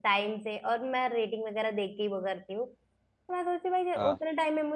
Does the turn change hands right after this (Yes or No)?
No